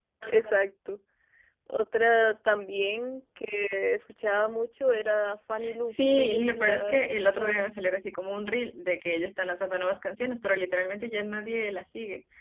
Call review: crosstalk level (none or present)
present